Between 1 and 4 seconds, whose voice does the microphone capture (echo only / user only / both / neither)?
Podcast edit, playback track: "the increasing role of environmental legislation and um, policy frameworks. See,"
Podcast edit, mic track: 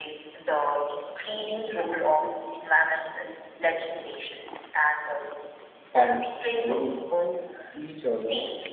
echo only